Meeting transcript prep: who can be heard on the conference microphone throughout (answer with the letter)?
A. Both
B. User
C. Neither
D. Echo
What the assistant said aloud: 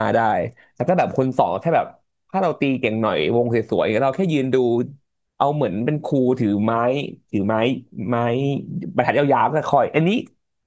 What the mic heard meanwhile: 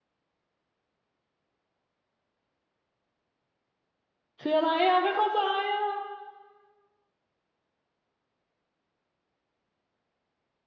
B